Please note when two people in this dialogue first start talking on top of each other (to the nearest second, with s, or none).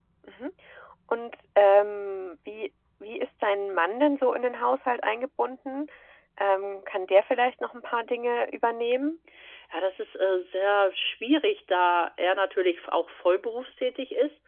none